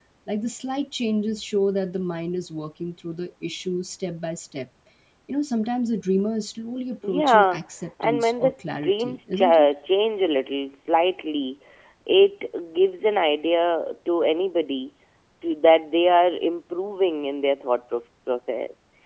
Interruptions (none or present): present